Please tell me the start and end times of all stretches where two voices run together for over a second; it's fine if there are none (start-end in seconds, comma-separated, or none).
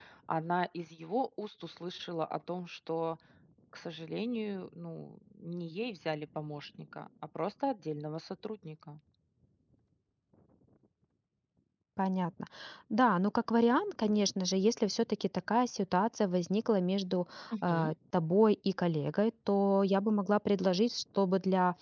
none